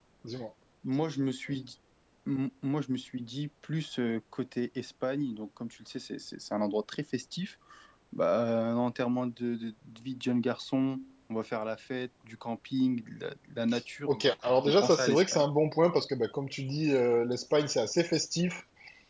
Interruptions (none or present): present